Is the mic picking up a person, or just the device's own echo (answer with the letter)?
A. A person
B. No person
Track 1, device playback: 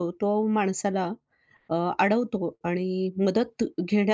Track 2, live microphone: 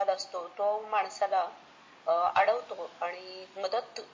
B